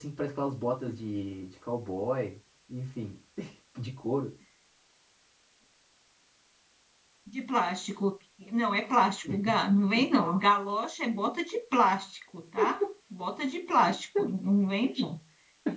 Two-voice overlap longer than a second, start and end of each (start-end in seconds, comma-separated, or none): none